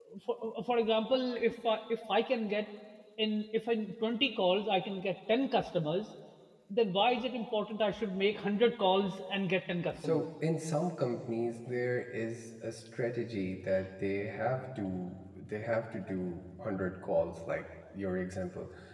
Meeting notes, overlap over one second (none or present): none